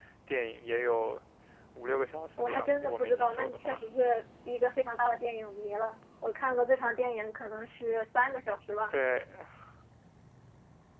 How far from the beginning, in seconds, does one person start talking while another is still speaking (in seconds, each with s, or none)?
2.4 s